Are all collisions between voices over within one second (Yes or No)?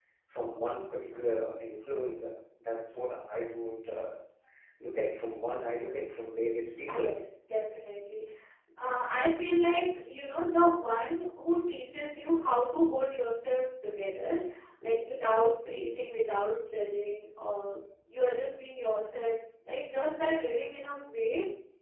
Yes